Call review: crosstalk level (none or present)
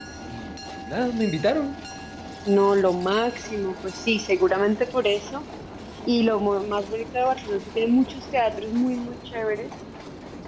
none